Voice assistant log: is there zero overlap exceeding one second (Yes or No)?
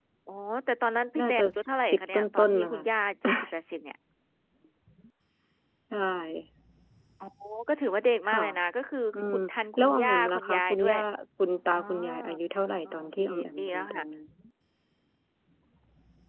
No